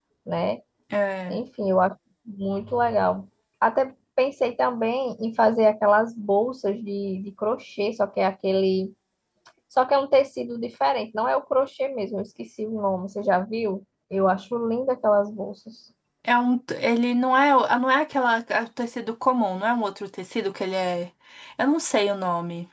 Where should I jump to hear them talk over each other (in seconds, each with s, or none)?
none